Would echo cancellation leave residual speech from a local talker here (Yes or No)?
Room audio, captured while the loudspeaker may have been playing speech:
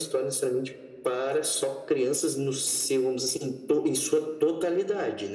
No